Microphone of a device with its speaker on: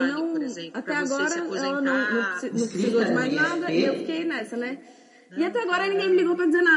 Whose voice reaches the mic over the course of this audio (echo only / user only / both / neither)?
both